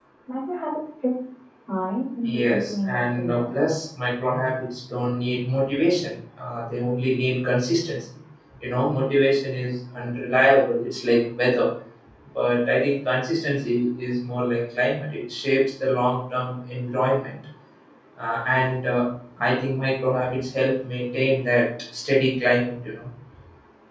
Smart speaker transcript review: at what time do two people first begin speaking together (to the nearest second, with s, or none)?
2 s